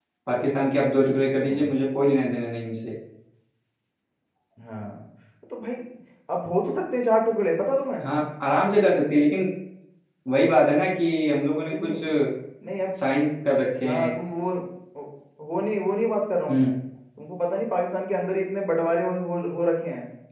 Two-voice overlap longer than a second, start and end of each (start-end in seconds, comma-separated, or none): none